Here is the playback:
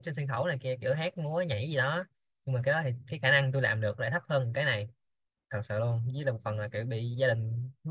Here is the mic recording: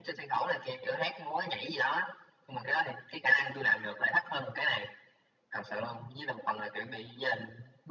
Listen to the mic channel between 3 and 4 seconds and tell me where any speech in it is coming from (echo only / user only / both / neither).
echo only